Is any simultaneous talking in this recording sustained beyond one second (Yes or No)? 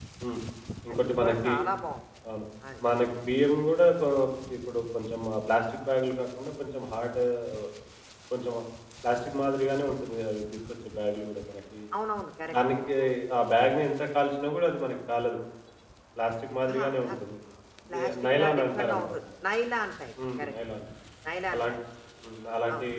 Yes